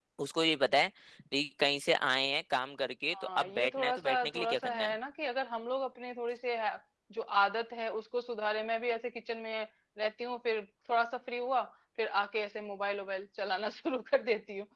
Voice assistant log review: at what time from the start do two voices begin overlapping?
3.1 s

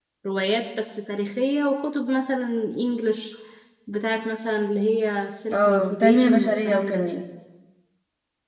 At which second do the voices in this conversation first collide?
5.5 s

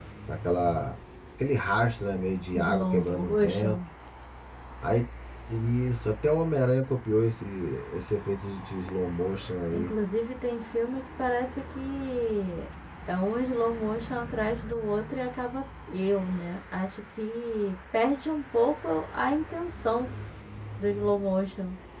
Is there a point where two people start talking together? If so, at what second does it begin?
2.5 s

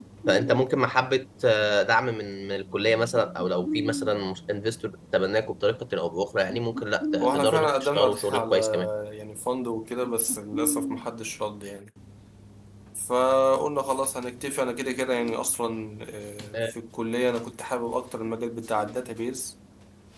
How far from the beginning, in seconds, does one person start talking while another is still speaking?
7.2 s

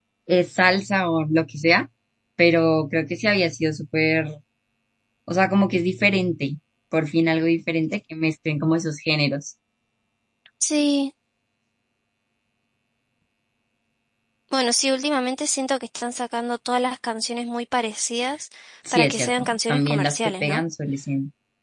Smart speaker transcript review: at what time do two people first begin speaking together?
18.9 s

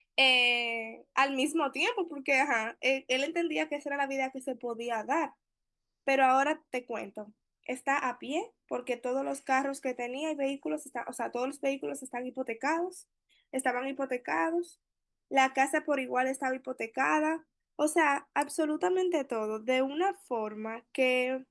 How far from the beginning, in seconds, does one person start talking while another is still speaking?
none

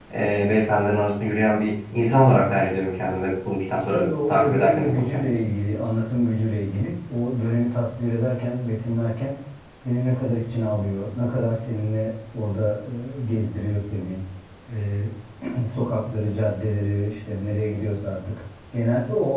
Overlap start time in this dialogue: 3.8 s

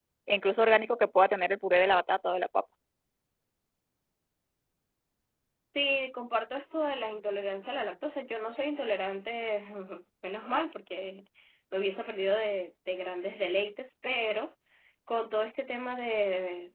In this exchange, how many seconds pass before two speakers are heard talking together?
none

